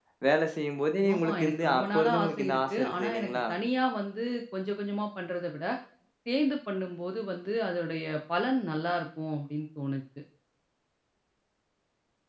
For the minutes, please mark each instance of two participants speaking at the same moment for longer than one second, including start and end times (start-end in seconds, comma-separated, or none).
1.1-3.4